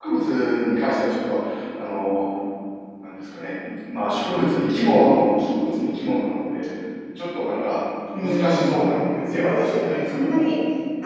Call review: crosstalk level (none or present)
present